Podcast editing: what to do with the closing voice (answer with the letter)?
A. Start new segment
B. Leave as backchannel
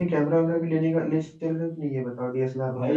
A